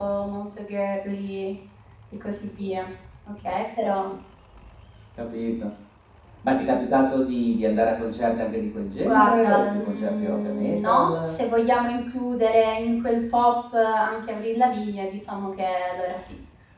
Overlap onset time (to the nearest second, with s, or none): 9 s